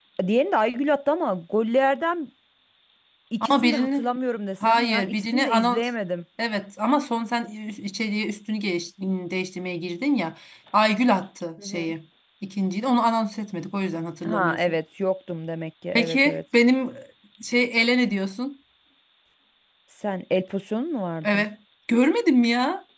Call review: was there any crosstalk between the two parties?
Yes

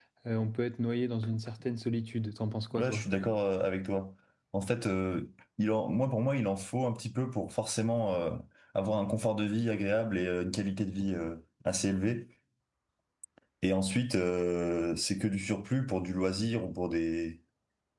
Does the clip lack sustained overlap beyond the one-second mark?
Yes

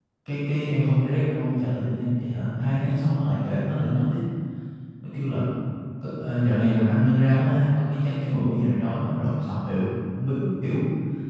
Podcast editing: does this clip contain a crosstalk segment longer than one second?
No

